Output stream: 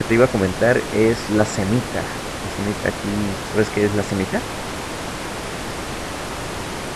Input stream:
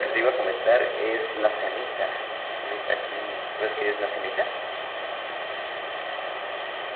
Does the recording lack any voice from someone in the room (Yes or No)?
Yes